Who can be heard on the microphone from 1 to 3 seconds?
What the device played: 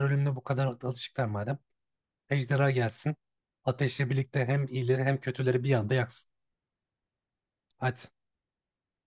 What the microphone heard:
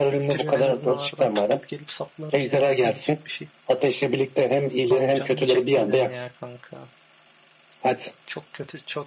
both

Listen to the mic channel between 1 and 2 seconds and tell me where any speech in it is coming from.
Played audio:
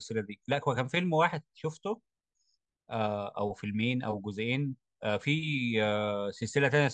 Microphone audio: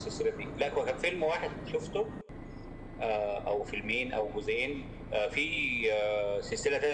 echo only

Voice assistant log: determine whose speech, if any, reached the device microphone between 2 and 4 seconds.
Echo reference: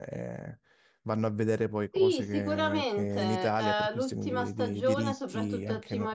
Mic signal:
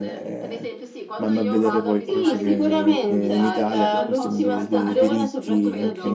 both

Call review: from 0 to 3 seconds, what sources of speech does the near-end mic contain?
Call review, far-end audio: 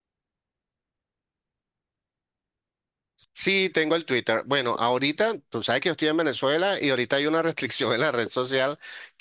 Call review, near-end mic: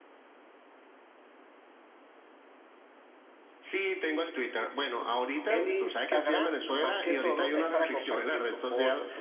neither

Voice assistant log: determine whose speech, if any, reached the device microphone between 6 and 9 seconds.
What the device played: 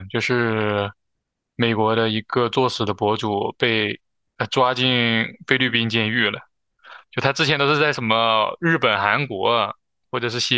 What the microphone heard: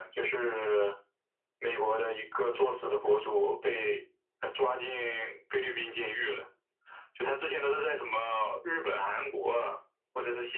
echo only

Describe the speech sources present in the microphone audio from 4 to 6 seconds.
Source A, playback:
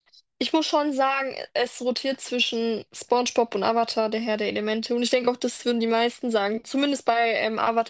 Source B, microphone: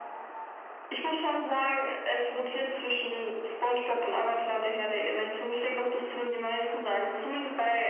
echo only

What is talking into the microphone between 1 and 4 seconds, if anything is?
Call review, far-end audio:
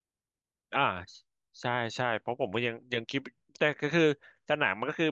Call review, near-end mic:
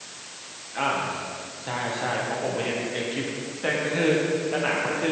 echo only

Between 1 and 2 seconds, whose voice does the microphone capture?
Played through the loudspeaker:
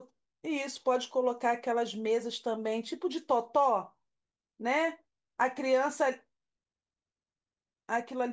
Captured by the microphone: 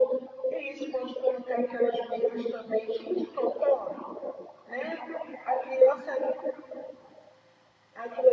echo only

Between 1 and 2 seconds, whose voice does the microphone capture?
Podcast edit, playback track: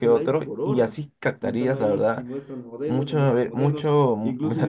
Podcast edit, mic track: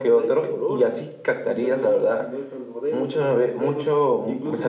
echo only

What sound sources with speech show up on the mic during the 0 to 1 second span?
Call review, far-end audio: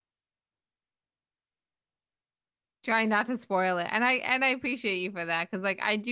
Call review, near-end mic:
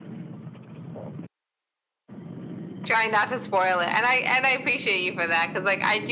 neither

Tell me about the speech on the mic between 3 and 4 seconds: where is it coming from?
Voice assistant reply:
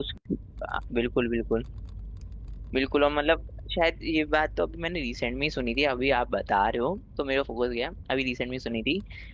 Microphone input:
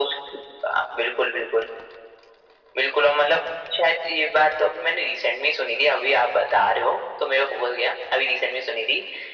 echo only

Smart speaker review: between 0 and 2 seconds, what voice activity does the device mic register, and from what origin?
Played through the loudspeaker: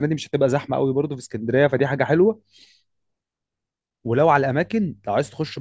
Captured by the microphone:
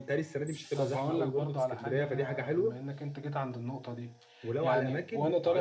both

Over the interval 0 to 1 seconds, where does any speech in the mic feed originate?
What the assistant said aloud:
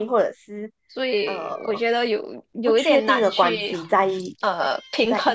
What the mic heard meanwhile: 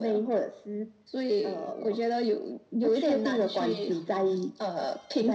echo only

